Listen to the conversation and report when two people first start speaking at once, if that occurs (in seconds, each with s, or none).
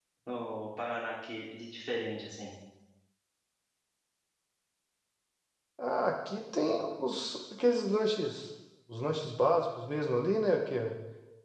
none